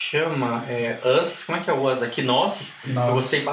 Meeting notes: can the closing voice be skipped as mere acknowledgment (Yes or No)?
Yes